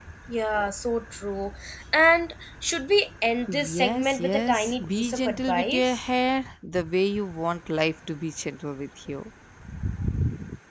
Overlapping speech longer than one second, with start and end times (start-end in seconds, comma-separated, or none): 3.7-6.0